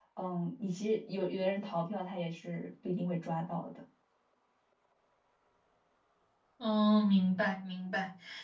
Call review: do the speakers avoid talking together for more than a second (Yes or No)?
Yes